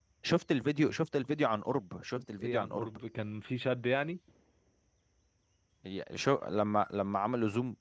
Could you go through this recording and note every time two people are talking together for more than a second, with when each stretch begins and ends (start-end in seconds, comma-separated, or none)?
none